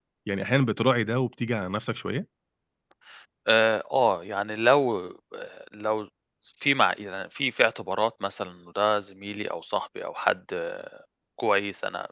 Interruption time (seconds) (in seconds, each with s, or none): none